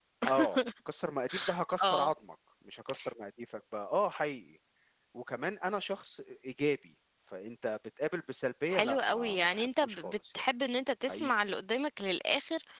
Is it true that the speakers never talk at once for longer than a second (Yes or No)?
No